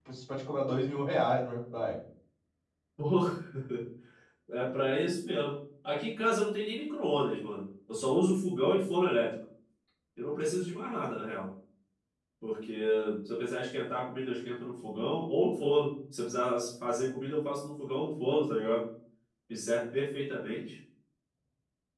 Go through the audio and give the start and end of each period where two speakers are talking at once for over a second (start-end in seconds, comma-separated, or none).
none